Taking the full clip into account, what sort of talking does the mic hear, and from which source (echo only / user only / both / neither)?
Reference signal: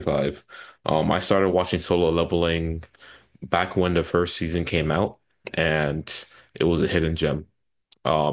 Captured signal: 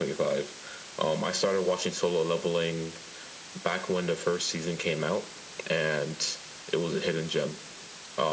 echo only